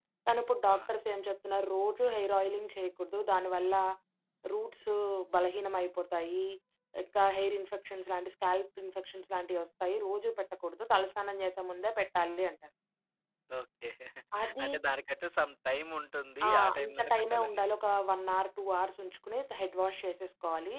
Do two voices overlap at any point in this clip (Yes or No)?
Yes